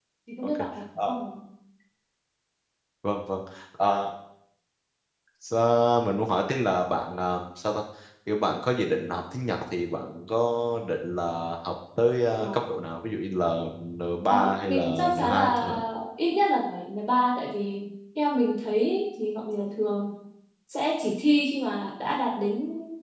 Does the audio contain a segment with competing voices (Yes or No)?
Yes